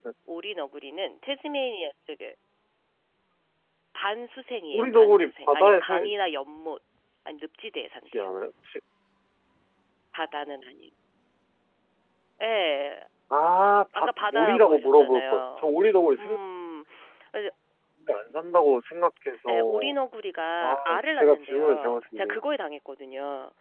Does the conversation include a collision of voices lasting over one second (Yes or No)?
Yes